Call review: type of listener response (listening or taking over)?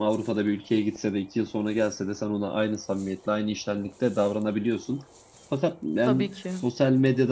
listening